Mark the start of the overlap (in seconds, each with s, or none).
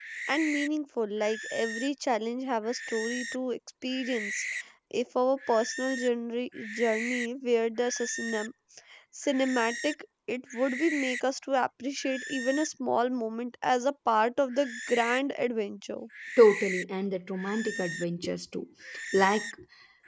none